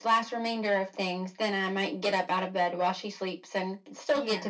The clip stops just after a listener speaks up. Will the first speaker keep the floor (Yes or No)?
Yes